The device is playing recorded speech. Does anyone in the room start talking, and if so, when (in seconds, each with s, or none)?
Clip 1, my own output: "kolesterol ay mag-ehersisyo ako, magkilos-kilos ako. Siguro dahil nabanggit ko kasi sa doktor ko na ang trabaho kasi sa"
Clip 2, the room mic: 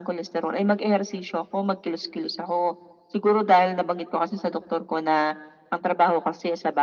none